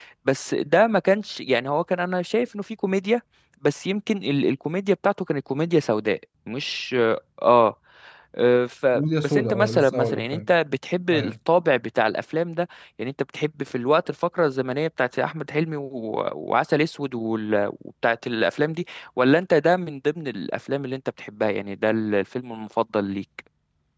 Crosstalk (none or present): present